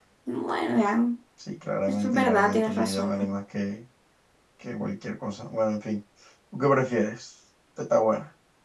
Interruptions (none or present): present